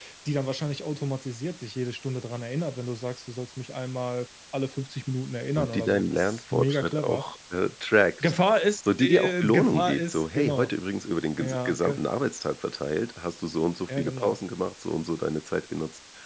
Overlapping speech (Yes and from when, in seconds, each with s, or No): Yes, from 5.6 s